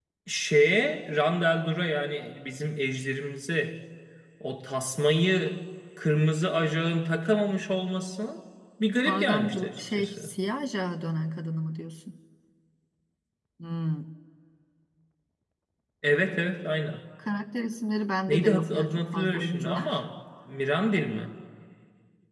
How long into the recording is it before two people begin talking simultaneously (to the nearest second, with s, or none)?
9 s